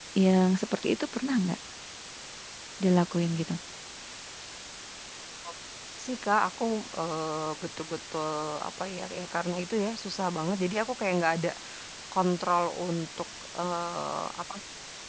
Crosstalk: none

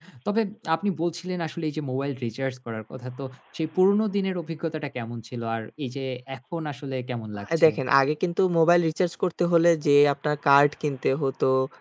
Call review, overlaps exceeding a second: none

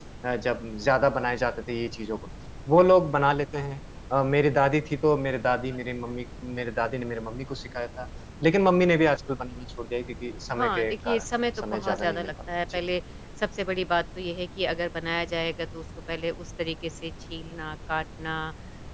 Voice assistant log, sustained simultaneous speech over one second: present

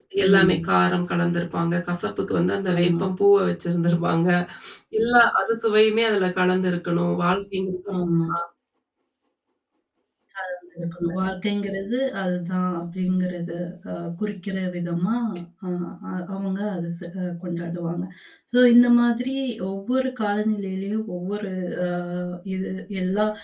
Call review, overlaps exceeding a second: none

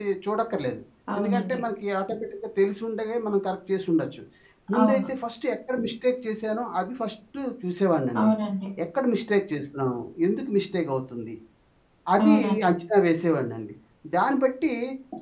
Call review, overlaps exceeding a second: none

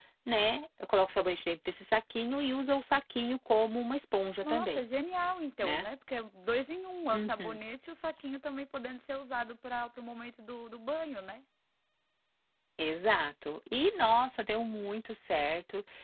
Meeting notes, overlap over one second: none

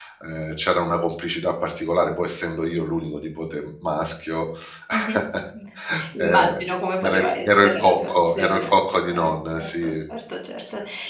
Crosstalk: present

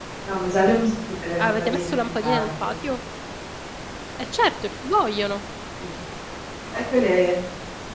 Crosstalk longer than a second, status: present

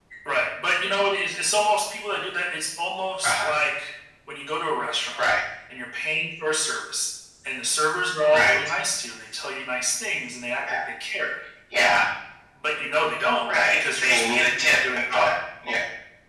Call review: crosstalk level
present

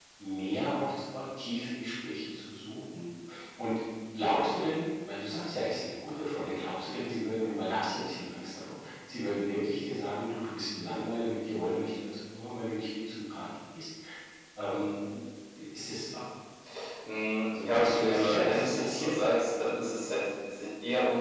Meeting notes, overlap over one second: present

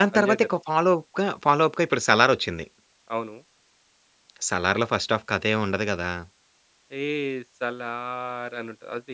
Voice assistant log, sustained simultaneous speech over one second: none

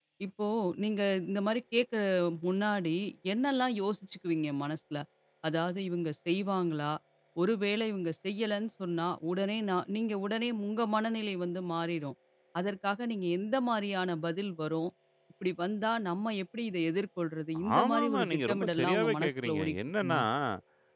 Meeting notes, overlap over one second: present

